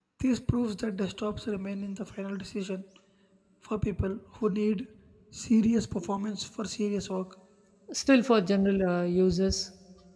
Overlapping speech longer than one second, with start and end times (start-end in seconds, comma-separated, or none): none